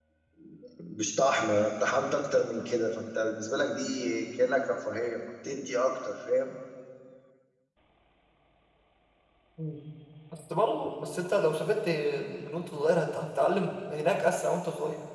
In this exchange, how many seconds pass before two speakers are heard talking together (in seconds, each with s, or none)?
none